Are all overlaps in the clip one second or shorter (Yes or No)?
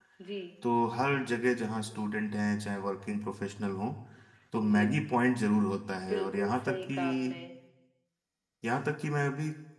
No